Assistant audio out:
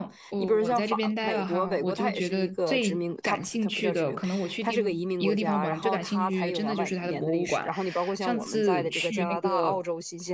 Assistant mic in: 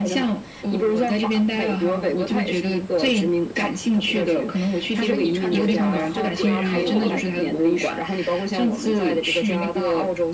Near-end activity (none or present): present